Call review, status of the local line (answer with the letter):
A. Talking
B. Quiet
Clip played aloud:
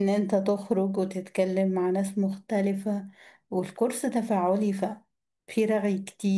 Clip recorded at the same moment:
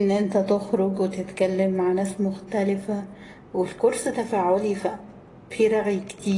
B